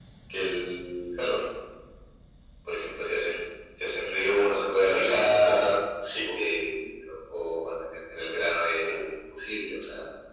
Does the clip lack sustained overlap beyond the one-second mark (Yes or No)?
No